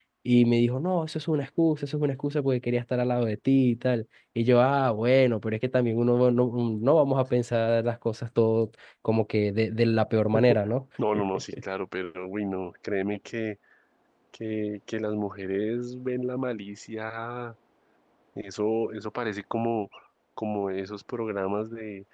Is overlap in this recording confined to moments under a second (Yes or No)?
Yes